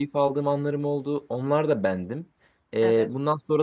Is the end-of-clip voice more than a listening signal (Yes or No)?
No